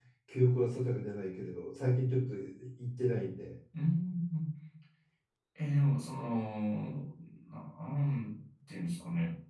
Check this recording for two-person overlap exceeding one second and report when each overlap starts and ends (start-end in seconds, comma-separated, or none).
none